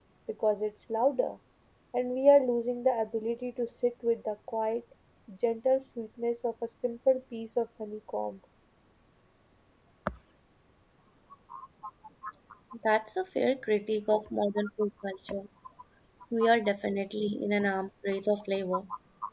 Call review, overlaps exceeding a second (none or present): none